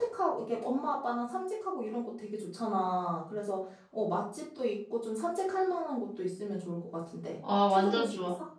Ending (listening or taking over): taking over